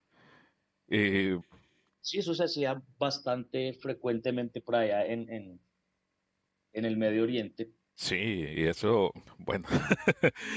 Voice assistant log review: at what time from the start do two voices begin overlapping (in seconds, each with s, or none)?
none